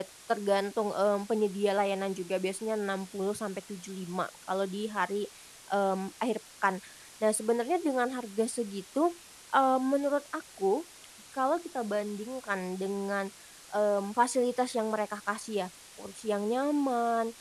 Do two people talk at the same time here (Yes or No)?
No